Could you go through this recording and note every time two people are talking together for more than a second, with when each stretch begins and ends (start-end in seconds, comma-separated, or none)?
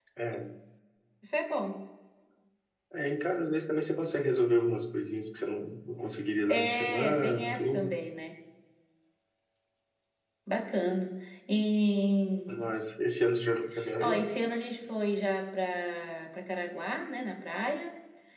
6.5-7.9